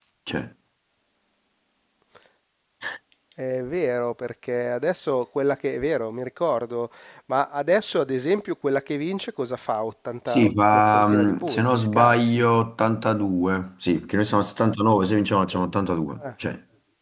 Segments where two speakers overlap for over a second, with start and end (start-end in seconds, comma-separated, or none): 10.3-12.4